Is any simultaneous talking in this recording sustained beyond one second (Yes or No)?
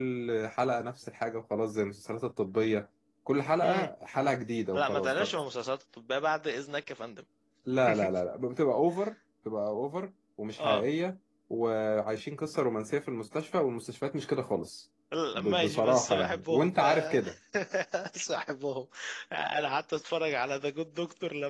Yes